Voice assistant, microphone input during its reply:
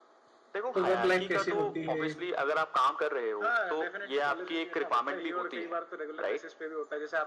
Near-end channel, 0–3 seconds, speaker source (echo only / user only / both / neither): both